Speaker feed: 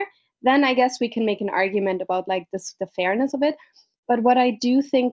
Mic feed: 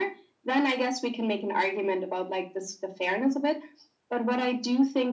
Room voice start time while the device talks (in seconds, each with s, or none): none